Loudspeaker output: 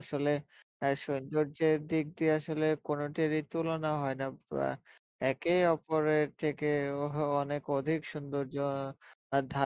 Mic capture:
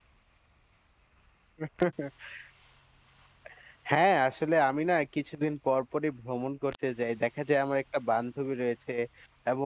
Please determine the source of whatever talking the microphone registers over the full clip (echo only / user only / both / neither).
user only